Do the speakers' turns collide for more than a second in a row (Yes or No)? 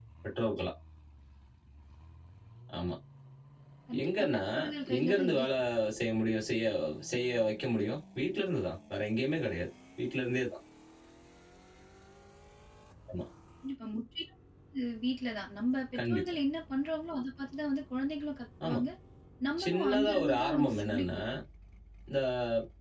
Yes